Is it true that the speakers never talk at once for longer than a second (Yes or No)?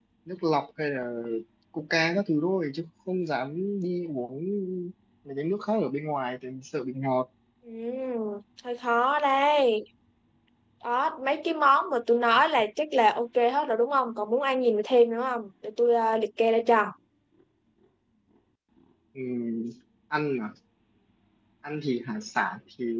Yes